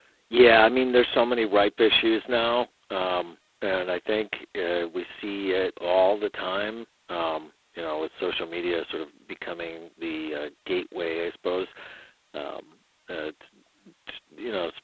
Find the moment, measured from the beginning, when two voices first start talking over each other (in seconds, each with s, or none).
none